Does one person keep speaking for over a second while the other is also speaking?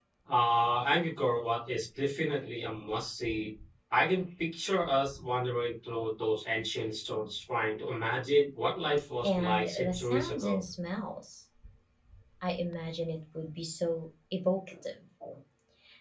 Yes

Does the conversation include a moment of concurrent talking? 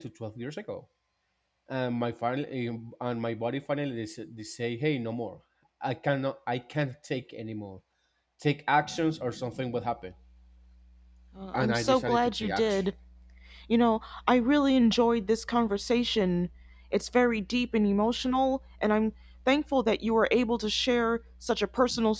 Yes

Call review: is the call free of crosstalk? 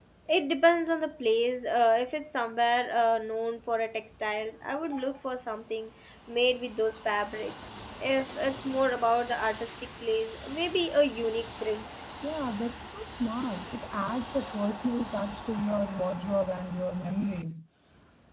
Yes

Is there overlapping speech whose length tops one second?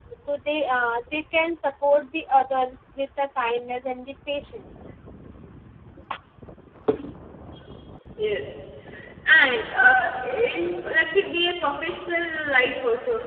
No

